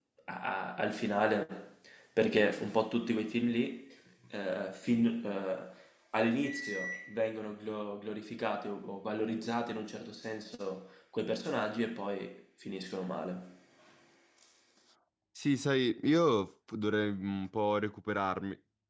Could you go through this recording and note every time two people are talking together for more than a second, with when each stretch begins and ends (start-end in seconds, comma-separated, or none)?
none